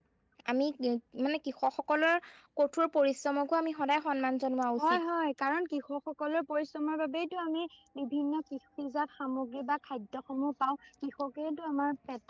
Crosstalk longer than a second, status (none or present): none